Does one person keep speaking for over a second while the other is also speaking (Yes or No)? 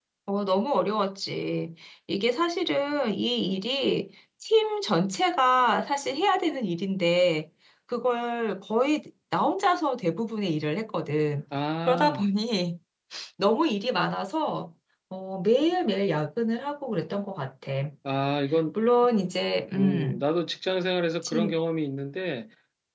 No